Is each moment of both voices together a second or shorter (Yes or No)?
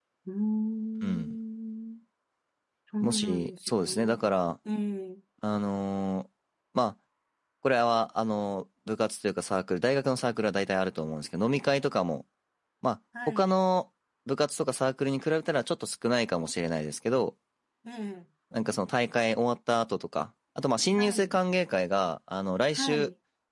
No